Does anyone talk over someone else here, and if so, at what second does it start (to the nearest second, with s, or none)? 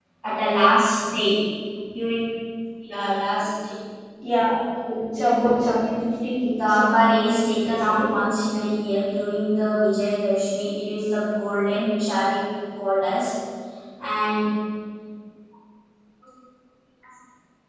6 s